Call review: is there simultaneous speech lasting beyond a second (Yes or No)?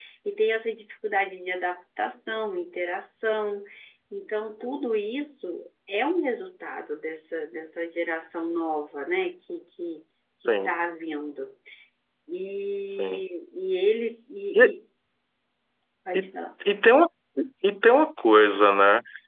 No